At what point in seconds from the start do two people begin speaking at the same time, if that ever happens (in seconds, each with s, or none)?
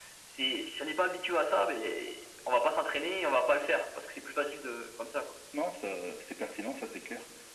none